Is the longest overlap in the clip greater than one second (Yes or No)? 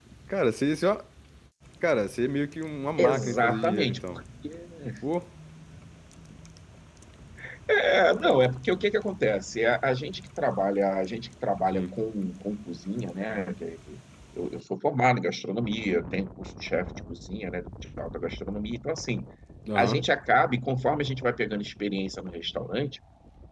Yes